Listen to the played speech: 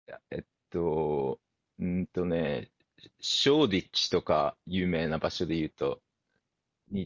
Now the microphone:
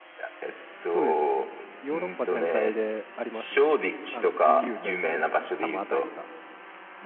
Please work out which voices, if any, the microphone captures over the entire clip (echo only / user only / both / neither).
both